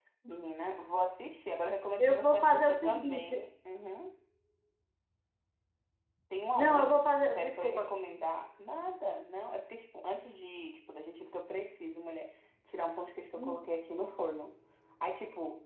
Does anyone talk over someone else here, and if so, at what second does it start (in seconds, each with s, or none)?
2.0 s